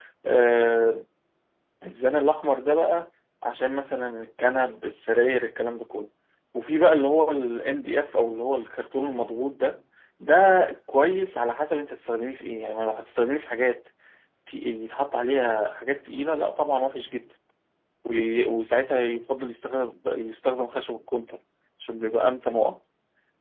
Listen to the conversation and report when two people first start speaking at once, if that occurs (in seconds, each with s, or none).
none